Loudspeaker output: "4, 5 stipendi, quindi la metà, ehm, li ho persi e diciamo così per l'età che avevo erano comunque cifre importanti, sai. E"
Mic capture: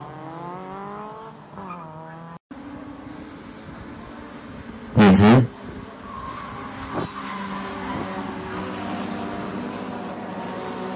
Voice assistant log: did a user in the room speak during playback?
Yes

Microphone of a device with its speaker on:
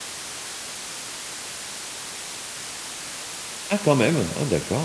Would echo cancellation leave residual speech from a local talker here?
Yes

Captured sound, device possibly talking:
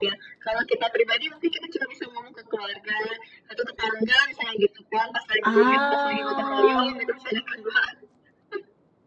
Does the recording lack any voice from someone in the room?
No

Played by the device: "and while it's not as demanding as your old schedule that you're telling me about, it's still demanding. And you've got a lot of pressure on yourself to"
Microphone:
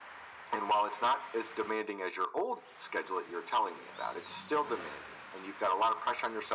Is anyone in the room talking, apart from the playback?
No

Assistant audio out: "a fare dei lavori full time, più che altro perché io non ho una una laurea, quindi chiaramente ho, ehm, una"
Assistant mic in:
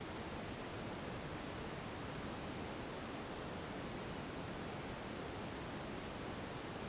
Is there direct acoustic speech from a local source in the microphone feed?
No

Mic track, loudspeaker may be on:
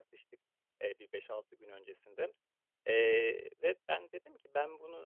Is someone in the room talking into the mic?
Yes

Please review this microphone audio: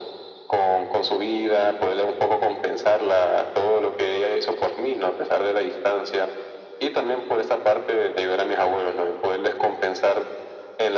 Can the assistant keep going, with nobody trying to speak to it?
Yes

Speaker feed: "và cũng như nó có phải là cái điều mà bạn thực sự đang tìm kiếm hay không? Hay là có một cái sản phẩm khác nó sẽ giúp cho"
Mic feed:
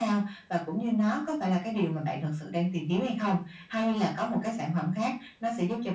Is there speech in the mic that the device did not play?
No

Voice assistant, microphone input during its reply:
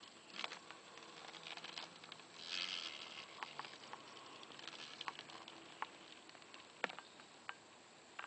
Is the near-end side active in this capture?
No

